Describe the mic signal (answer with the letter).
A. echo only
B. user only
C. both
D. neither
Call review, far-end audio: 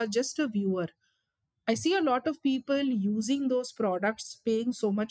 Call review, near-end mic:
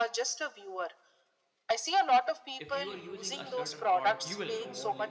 C